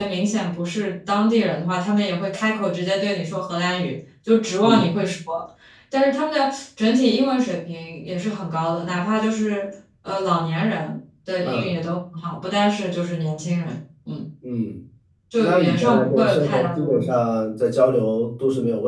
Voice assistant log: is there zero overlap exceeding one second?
No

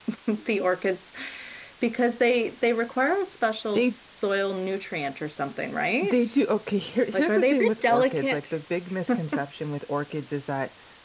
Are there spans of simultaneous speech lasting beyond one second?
Yes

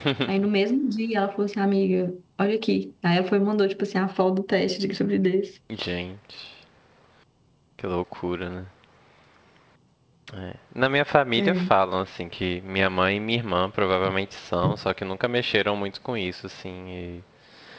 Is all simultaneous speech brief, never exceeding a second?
Yes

